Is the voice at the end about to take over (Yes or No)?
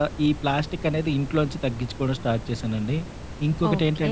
Yes